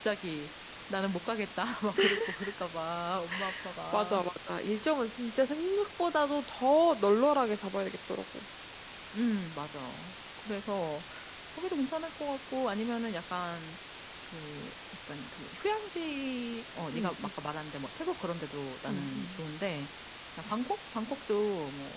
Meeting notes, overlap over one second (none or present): none